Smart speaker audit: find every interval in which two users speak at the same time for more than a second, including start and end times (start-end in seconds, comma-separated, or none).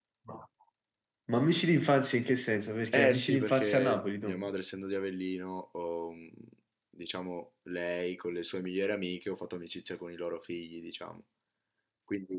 2.9-4.4